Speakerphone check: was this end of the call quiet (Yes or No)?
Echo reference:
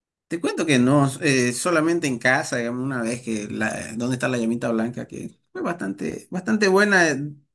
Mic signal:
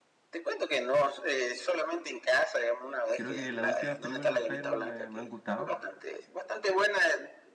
No